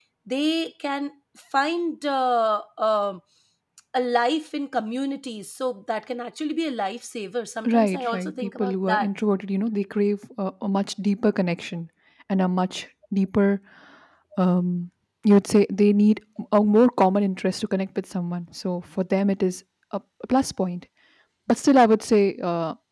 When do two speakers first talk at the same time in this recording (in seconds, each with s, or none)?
7.6 s